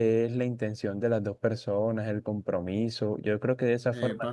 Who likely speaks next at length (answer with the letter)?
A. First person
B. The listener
A